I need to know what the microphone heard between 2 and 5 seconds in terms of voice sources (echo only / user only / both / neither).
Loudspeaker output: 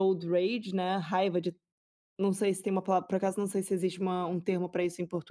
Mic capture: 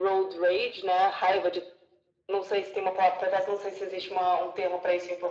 echo only